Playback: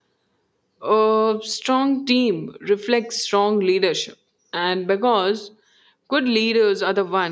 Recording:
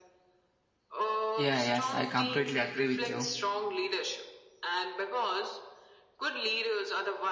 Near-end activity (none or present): present